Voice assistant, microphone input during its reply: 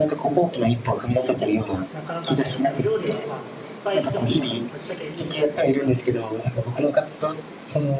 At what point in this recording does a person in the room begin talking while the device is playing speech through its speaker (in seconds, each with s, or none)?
1.9 s